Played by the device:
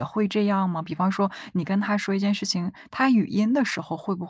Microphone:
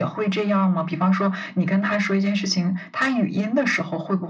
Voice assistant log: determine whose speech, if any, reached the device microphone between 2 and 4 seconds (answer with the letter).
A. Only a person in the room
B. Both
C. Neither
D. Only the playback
D